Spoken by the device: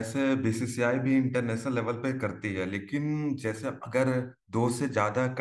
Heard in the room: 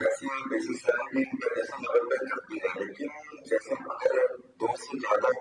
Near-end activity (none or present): none